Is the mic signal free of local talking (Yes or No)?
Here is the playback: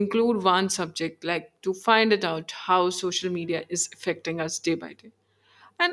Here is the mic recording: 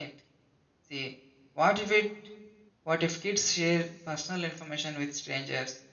No